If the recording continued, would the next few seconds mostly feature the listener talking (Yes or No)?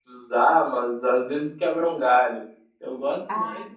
No